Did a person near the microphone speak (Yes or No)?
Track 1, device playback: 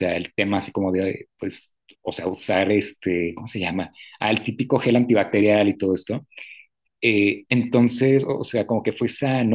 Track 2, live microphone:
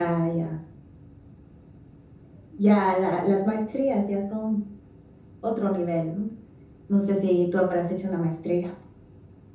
Yes